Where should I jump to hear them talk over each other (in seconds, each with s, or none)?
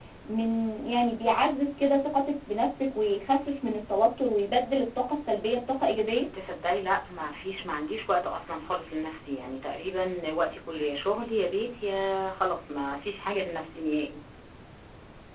none